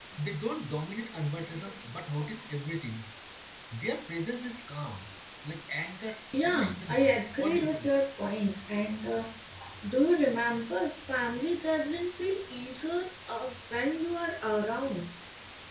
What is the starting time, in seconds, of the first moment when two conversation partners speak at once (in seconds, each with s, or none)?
6.3 s